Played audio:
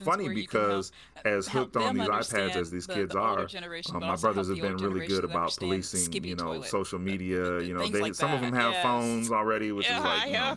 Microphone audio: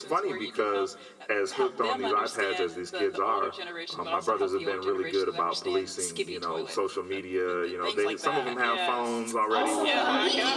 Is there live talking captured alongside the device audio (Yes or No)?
Yes